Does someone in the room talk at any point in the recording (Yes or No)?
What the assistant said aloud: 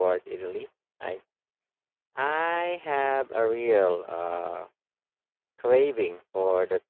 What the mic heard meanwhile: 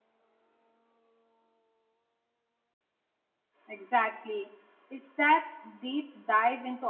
Yes